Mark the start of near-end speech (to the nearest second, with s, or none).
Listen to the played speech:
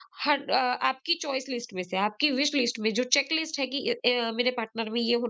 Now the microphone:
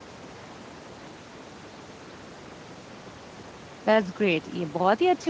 4 s